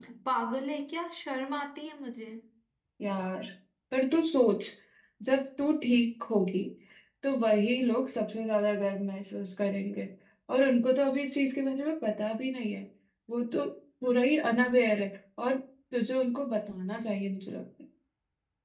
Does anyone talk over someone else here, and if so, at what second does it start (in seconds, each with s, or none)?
none